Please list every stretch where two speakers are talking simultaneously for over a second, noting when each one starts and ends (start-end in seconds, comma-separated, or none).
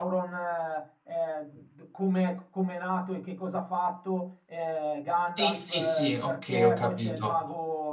5.4-7.4